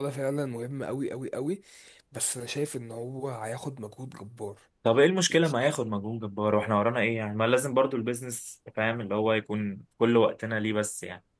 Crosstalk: none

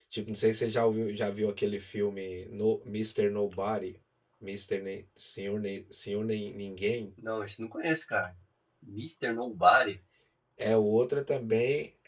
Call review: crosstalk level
none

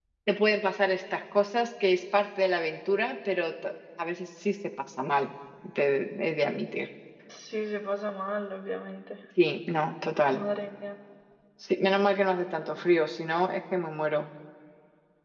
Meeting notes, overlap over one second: none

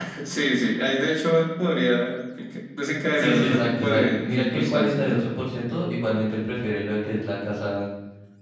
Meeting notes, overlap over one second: present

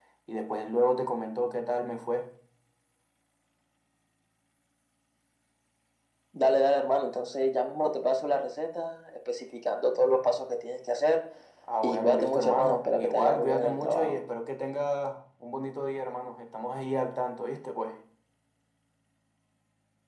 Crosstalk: present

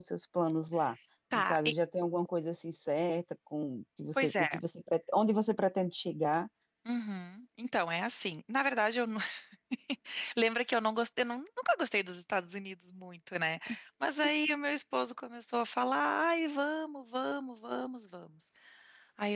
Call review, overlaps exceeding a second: none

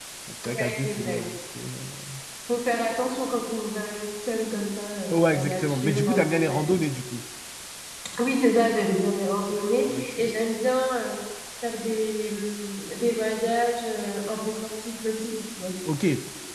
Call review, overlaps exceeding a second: present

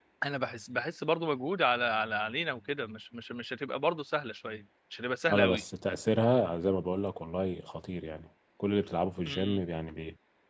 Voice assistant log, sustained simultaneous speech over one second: none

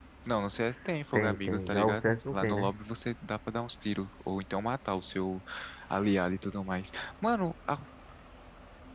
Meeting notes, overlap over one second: present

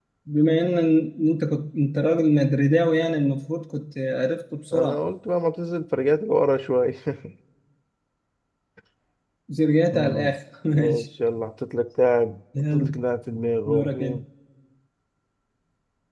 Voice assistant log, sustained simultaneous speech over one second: none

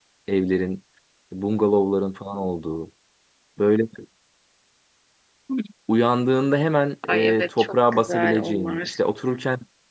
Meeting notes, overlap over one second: present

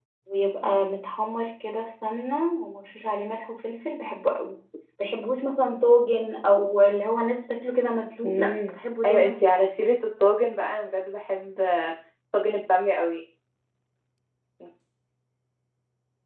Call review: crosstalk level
present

